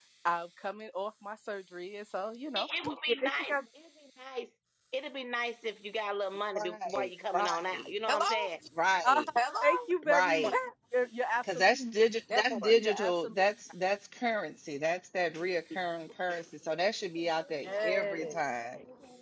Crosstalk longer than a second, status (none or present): present